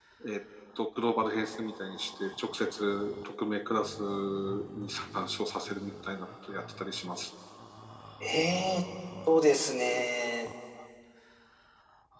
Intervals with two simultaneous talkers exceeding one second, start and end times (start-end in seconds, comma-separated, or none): none